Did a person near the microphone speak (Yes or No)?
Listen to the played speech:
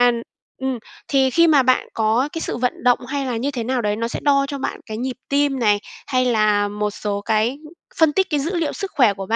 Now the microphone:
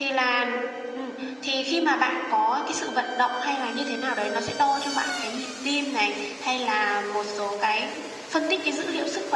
No